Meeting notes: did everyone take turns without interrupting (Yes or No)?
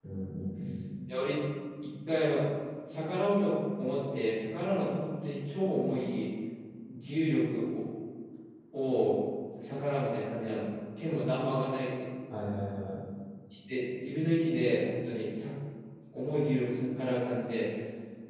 Yes